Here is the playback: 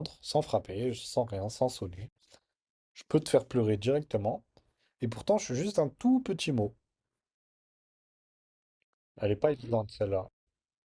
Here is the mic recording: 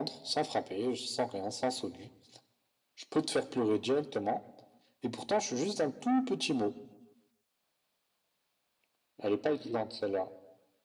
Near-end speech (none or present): none